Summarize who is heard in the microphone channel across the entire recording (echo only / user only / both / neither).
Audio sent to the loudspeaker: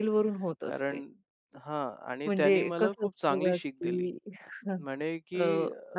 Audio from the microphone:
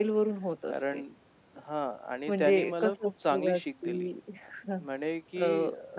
echo only